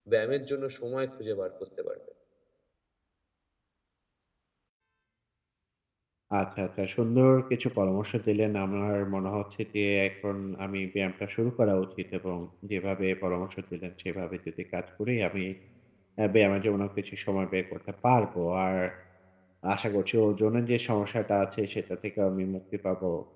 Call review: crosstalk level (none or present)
none